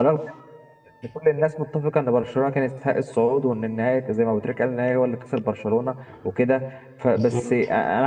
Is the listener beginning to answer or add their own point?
No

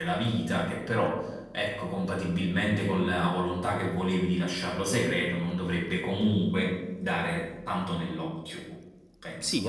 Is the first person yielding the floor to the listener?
Yes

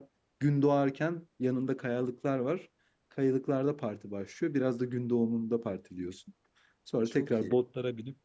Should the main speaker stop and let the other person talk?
No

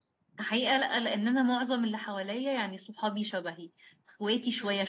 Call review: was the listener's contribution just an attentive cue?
Yes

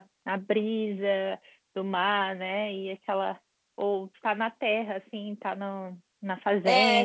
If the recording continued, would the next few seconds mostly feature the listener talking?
Yes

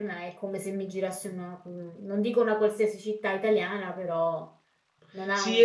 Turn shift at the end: Yes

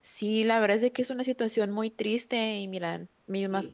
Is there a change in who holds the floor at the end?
No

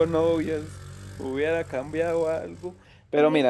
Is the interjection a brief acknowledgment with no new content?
Yes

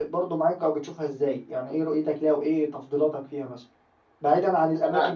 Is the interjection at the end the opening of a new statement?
No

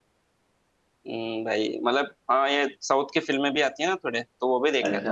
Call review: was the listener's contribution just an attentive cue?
No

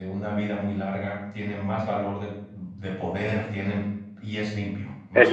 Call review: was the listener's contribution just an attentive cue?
No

